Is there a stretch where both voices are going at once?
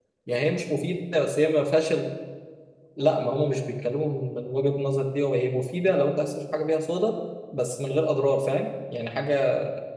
No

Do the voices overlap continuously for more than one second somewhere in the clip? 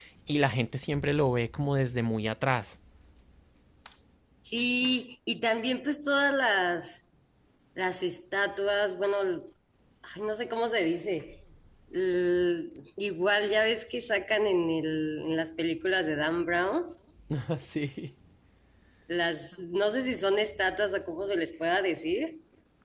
No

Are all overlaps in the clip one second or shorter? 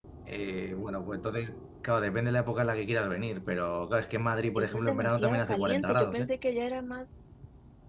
No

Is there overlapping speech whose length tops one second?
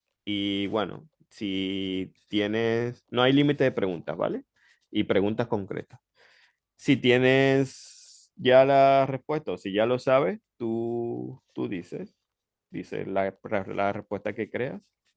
No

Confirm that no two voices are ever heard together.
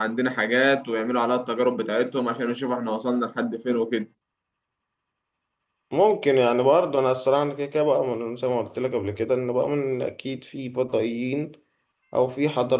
Yes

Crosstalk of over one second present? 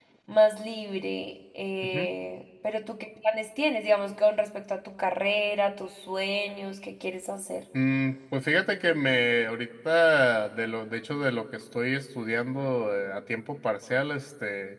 No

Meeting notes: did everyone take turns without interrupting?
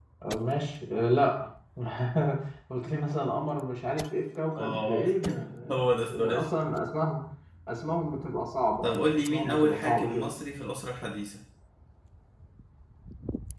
No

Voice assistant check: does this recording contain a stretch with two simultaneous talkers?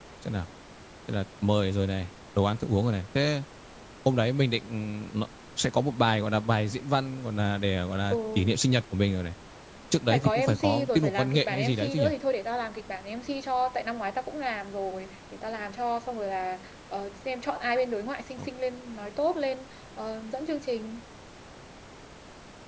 Yes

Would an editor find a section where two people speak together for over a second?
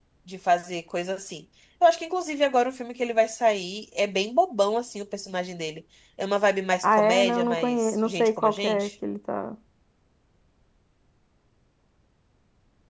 Yes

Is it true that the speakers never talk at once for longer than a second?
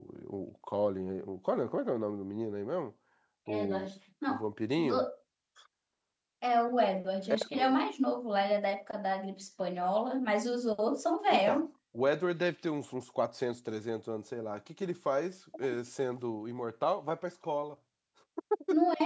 Yes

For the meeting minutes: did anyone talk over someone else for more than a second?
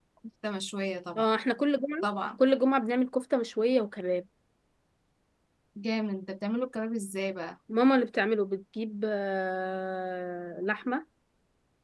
No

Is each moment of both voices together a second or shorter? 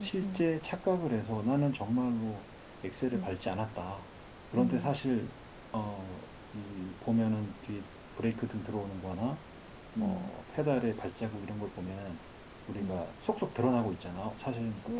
Yes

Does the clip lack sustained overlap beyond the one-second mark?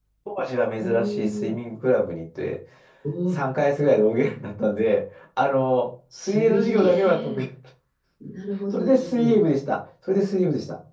No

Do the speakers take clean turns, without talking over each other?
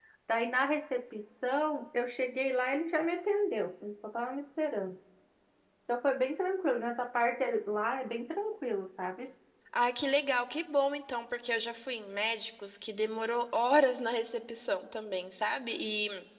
Yes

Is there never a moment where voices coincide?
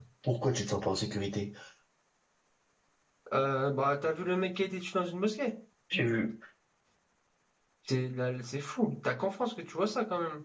Yes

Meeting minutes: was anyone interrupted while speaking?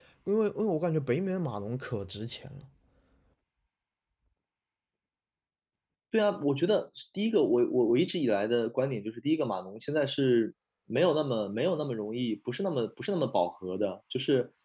No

